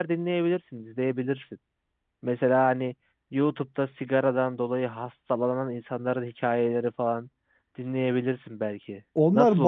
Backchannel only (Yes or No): No